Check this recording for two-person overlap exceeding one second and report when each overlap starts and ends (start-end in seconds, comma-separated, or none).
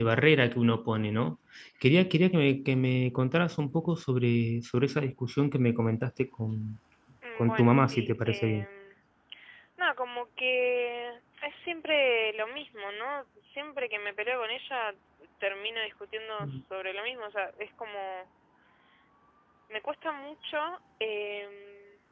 7.4-8.7